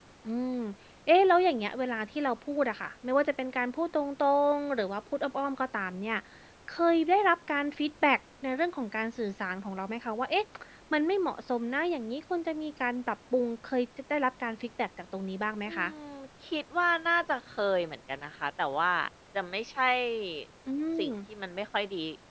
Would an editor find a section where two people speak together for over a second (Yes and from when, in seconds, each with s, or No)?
No